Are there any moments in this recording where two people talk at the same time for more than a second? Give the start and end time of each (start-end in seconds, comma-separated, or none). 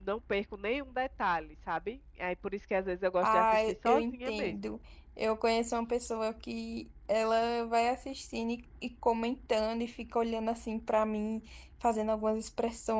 3.2-4.5